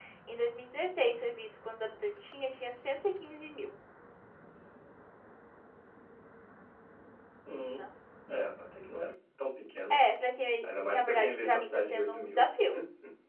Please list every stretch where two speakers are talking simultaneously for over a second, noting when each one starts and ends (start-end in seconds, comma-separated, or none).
10.6-12.4